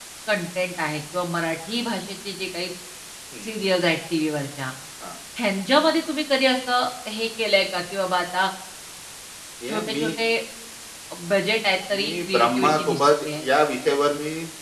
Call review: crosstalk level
present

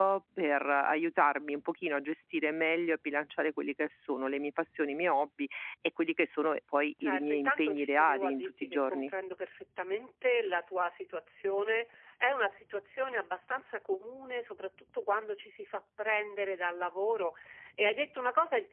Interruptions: present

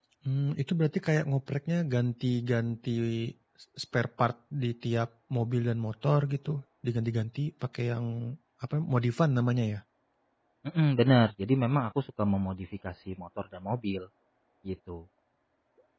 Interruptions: none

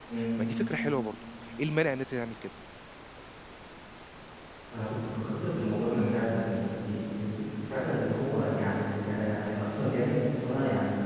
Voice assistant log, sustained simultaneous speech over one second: none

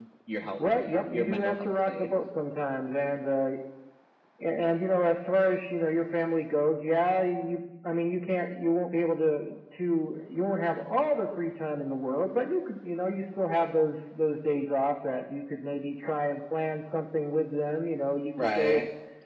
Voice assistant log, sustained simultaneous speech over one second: present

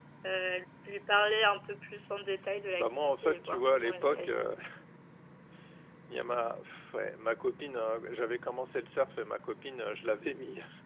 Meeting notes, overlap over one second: present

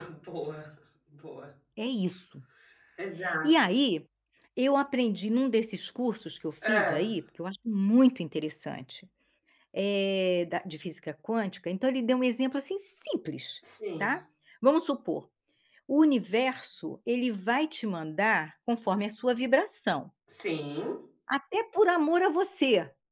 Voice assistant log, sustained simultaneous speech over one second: none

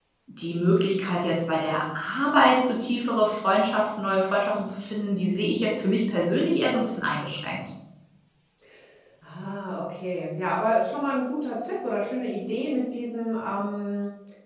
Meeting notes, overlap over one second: none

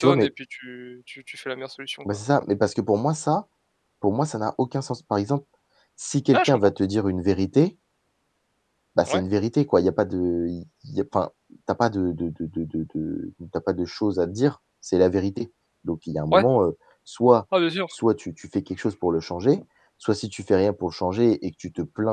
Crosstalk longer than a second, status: none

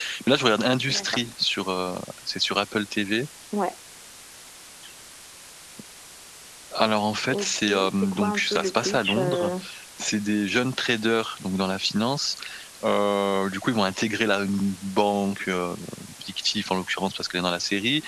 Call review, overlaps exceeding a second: present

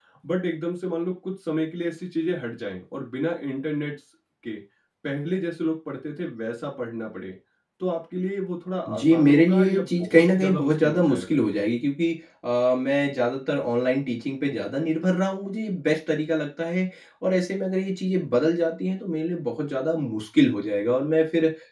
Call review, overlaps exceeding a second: present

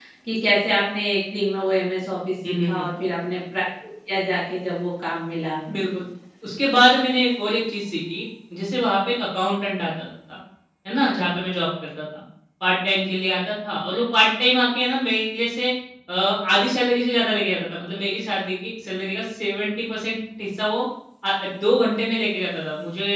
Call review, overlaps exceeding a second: none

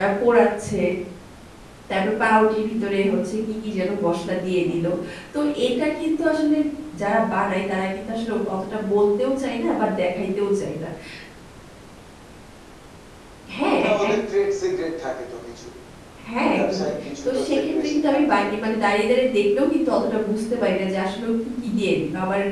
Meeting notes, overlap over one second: present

